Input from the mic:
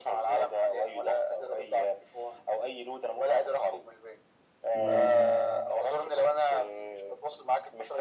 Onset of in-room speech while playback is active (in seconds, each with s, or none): 4.7 s